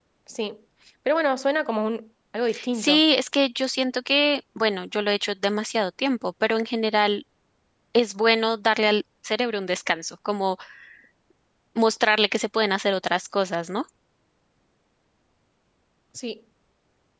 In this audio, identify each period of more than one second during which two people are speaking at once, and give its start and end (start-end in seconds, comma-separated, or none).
none